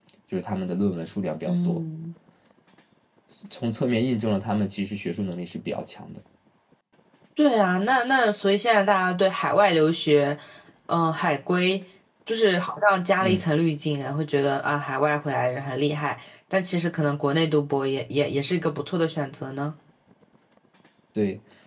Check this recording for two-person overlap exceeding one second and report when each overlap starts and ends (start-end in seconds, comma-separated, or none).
none